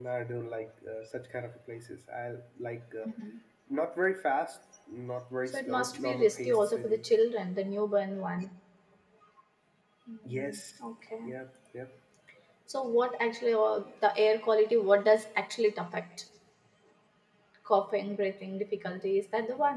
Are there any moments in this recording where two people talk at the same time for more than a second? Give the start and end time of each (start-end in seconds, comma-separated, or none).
5.5-7.1